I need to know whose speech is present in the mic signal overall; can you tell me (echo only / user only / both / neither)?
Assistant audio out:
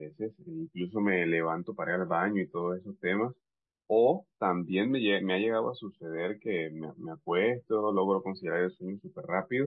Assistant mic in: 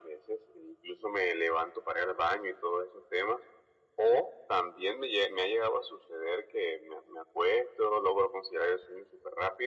echo only